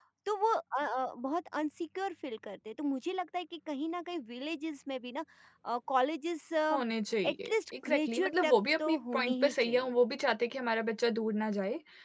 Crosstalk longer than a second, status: present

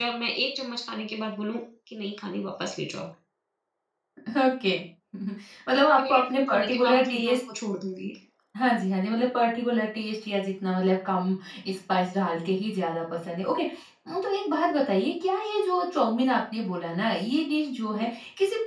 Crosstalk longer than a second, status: present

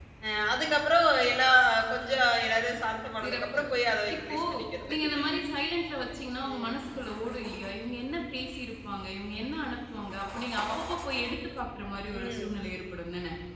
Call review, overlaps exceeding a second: none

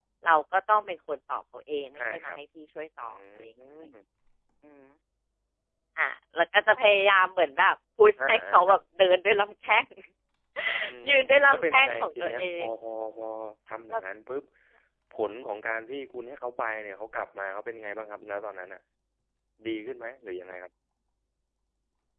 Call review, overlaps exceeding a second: present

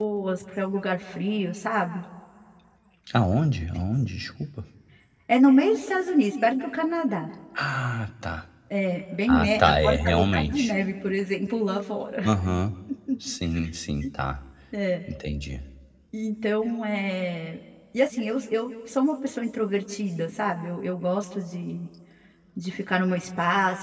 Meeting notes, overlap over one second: present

